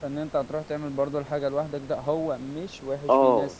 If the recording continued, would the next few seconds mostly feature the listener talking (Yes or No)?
No